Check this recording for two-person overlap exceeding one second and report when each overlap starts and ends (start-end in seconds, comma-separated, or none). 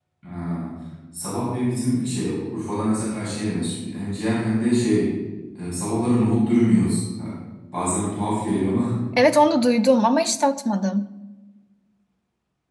none